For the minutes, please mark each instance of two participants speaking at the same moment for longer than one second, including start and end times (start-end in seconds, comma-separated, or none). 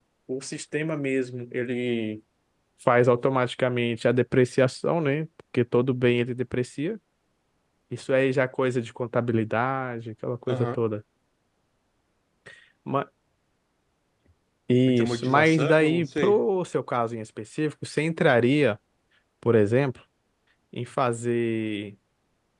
14.9-16.4